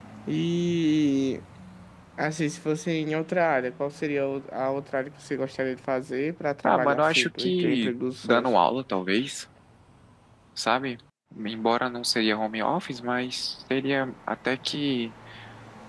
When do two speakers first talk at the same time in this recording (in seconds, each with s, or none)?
6.6 s